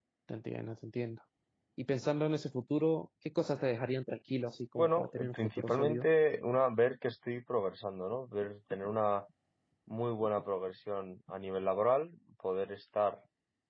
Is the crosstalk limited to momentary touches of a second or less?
No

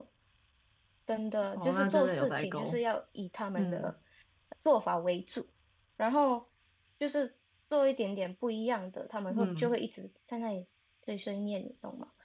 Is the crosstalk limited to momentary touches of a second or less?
No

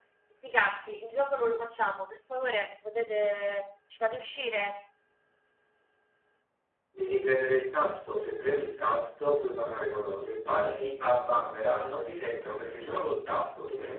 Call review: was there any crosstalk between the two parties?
No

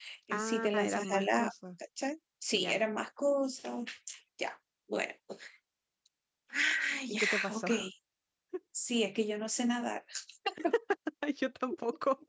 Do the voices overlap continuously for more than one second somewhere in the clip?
Yes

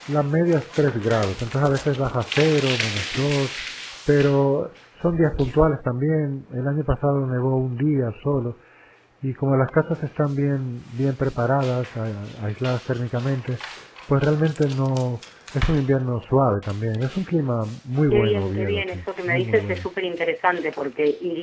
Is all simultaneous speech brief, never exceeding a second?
No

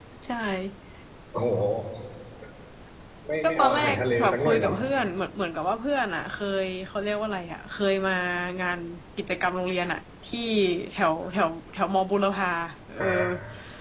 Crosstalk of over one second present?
Yes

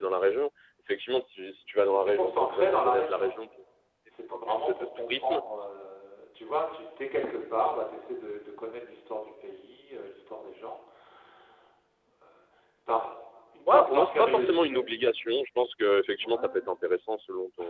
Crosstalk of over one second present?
Yes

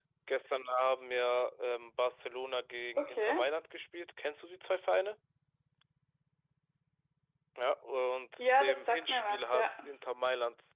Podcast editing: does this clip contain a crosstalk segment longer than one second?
Yes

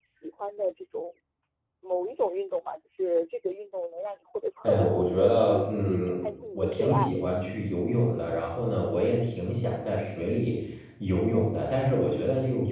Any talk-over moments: Yes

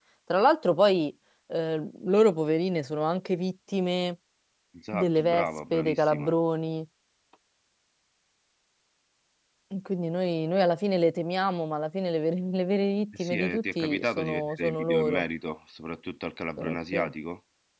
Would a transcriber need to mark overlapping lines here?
Yes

